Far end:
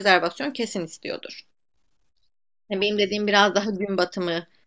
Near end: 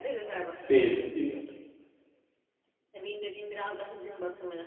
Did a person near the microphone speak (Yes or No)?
Yes